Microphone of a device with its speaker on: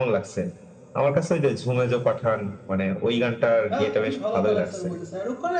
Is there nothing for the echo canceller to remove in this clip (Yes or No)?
No